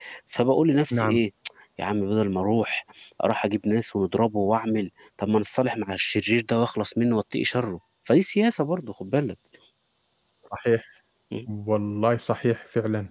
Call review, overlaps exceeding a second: none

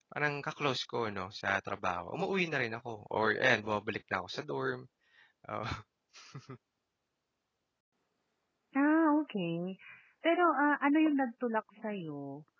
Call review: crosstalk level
none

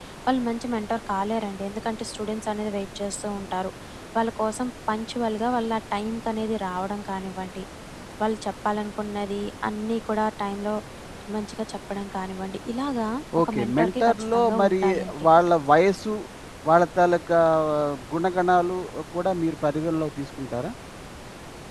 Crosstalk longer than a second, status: present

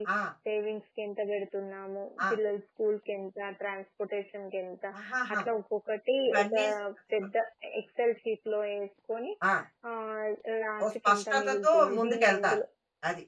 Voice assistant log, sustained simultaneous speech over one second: present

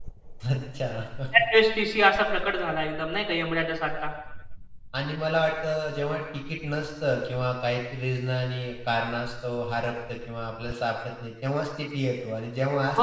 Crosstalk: none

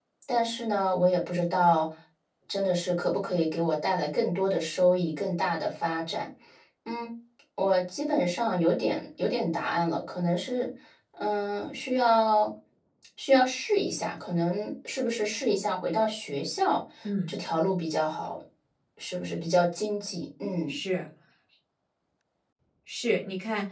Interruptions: none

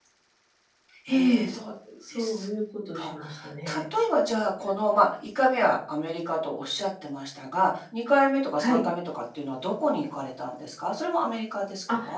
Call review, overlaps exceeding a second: none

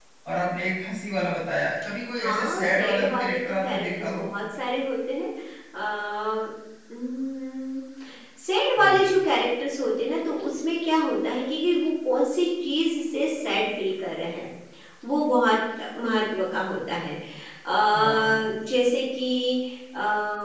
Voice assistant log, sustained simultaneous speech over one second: present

